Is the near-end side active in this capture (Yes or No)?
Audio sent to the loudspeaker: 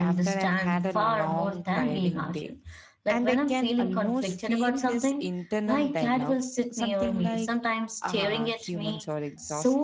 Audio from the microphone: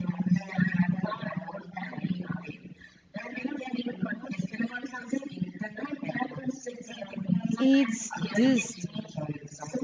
Yes